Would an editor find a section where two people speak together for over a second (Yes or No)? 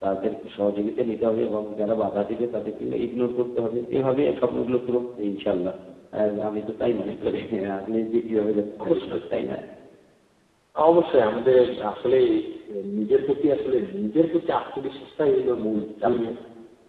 No